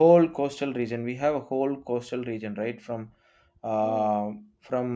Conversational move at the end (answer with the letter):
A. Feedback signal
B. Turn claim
A